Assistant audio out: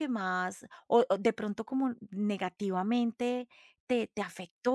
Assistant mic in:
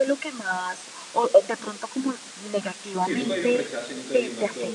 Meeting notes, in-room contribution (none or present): present